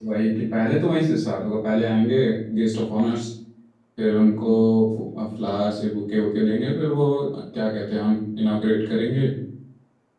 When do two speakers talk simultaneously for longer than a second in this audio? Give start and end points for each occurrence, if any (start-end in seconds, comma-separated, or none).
none